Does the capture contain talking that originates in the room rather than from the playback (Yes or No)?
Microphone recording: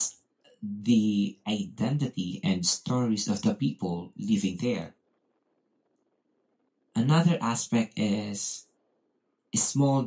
No